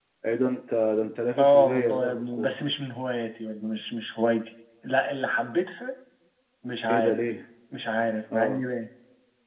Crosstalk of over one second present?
Yes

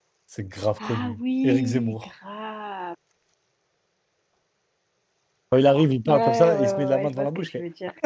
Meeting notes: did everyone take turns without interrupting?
No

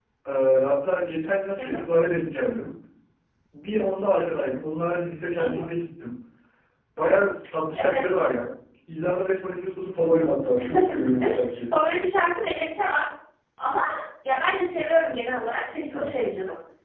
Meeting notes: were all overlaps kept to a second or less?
Yes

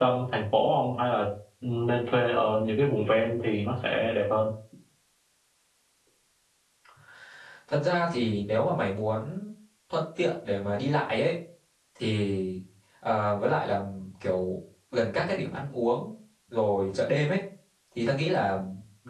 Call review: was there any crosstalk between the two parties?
No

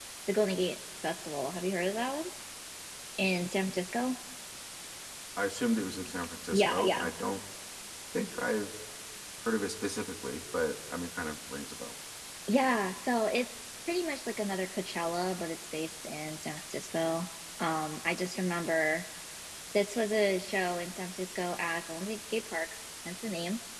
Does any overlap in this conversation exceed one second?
No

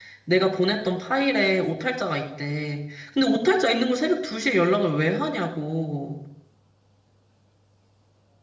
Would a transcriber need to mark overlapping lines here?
No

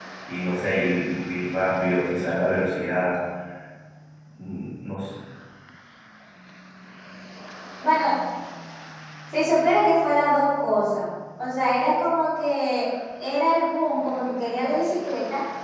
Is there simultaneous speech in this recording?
No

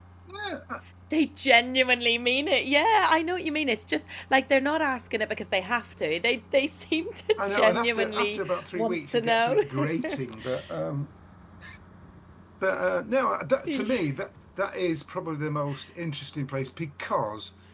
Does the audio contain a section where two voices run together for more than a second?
Yes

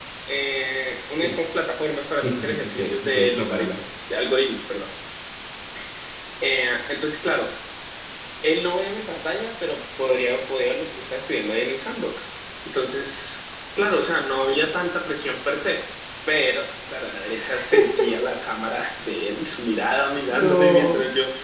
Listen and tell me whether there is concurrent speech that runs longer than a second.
Yes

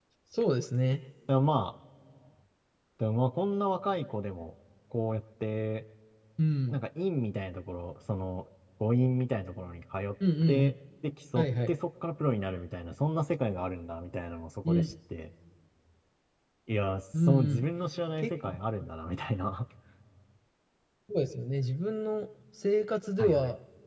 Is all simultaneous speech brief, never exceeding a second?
Yes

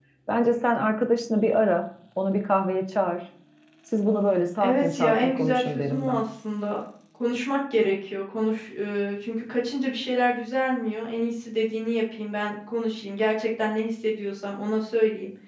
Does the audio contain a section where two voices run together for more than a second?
Yes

